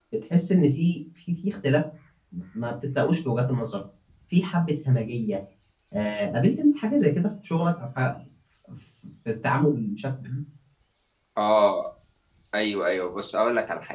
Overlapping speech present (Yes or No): No